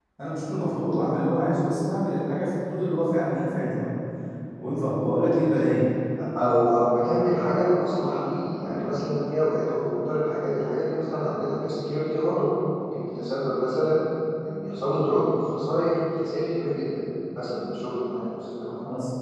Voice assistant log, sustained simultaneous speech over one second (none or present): none